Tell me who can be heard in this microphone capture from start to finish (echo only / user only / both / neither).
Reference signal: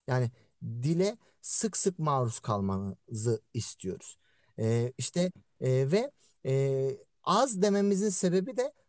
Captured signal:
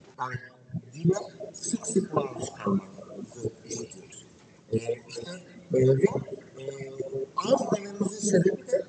echo only